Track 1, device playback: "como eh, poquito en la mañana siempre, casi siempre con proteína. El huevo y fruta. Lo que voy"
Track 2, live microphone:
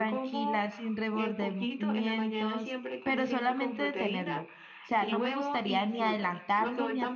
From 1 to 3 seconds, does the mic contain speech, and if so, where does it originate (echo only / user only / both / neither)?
both